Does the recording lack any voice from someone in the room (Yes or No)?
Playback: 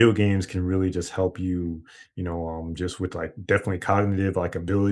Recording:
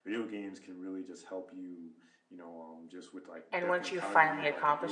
No